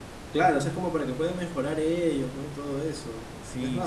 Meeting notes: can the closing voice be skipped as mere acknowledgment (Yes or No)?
Yes